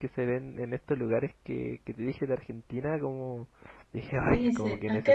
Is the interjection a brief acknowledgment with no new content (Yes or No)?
No